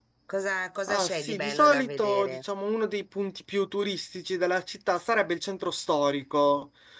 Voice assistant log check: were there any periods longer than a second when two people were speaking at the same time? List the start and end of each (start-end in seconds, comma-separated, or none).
0.9-2.4